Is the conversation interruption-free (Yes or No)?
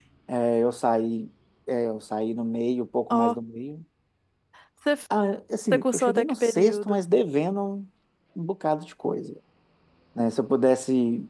No